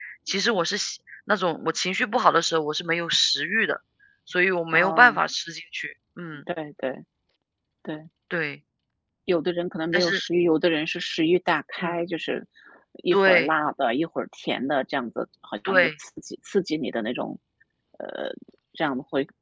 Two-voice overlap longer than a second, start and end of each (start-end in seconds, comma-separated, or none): none